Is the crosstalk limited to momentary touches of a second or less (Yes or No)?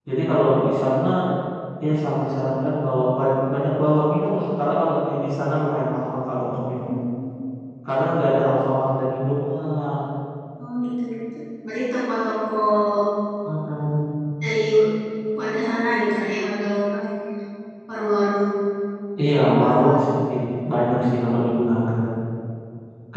Yes